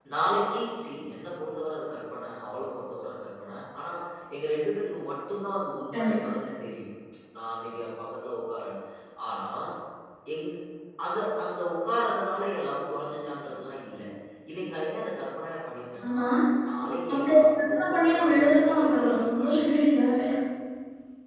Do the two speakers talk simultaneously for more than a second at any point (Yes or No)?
Yes